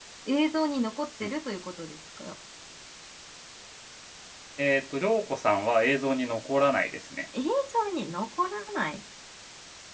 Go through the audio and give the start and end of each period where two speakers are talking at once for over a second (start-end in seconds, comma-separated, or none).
none